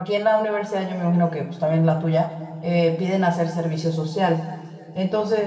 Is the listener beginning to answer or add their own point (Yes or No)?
No